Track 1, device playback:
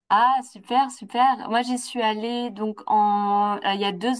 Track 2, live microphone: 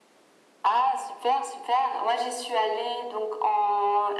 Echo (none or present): present